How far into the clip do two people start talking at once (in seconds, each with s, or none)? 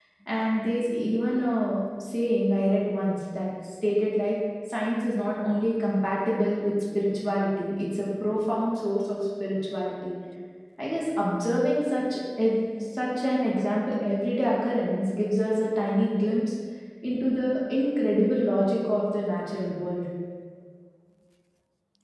none